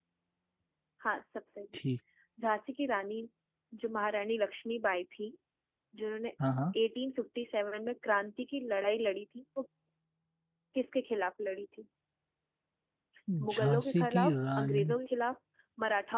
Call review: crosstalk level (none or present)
present